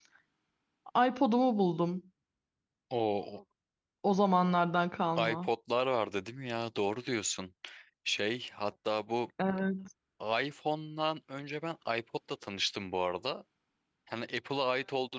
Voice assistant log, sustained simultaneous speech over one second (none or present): none